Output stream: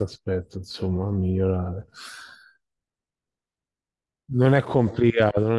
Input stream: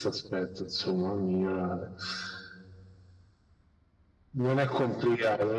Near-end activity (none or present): none